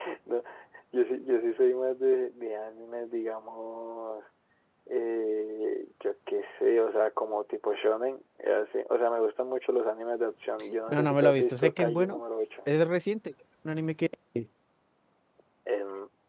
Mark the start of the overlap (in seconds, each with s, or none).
10.9 s